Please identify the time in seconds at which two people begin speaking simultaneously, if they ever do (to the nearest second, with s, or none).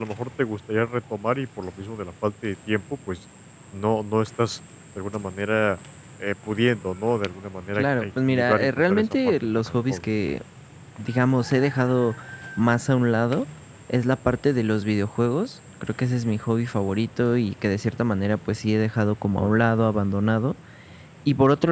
8 s